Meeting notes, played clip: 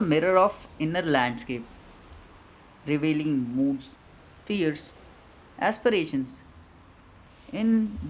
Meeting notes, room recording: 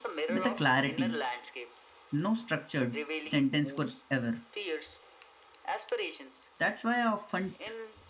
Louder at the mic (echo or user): user